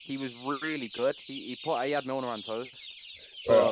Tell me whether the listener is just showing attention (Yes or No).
No